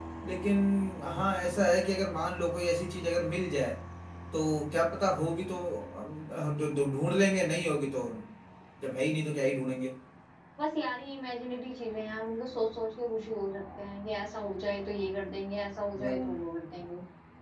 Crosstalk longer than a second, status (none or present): none